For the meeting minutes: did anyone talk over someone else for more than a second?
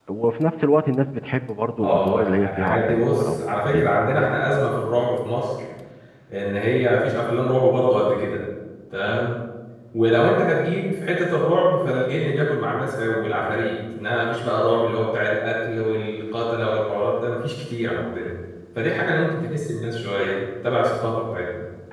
Yes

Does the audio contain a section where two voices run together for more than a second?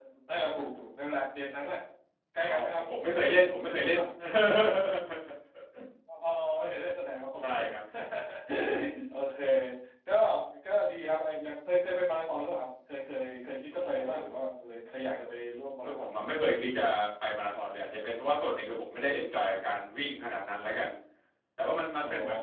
No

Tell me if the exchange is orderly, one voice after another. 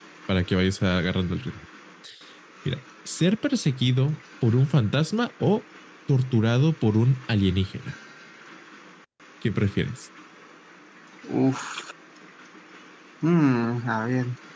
Yes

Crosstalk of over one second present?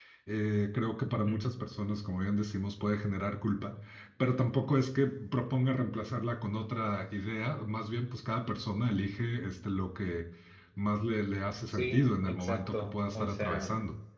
Yes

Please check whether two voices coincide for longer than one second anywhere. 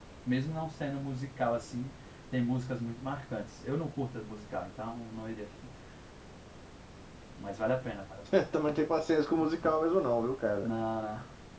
No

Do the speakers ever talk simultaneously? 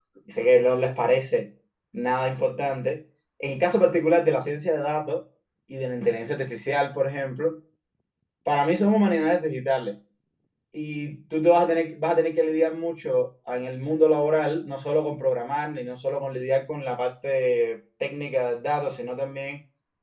No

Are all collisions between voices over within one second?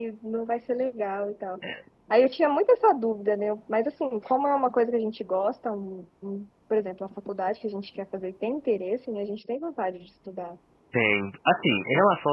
Yes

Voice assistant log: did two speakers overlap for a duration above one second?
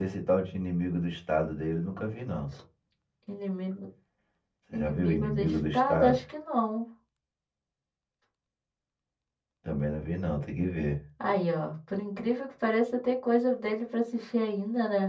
Yes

